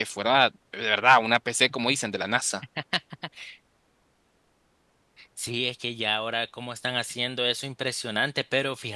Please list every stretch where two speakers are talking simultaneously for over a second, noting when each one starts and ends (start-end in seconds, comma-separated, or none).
none